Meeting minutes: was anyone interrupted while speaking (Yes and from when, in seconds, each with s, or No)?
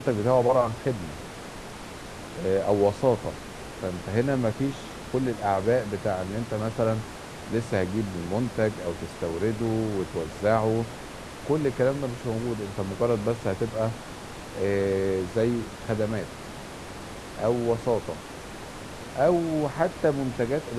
No